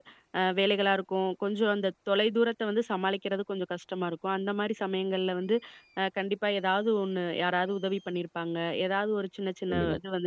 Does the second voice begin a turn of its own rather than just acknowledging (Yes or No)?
No